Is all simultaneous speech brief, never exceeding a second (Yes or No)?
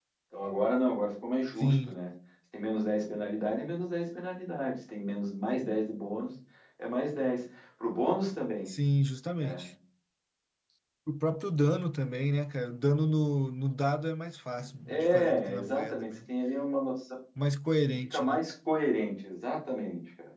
No